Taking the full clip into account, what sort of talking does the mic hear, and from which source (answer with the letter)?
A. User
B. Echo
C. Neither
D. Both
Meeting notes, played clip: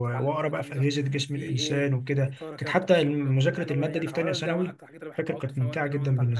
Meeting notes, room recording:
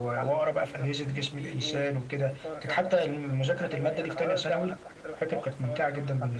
B